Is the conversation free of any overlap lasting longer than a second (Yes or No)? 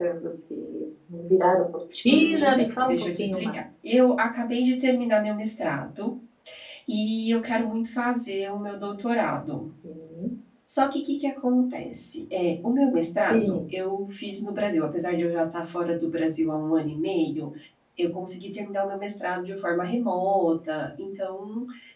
No